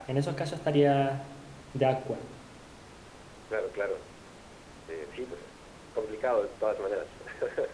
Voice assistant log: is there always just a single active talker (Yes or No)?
Yes